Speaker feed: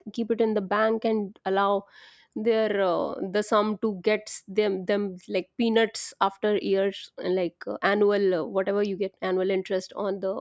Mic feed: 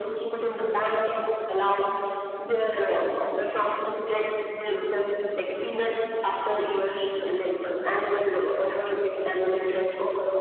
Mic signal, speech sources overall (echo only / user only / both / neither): echo only